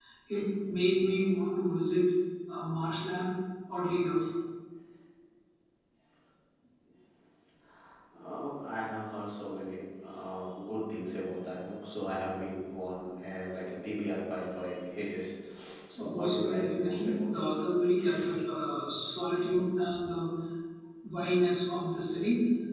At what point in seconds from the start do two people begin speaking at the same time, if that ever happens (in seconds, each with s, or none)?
16.0 s